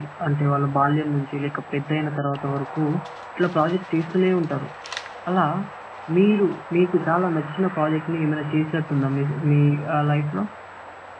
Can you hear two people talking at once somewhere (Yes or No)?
No